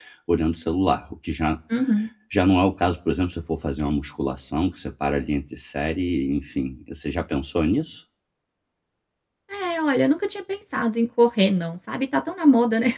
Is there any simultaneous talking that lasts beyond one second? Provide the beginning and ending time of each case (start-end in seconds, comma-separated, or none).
none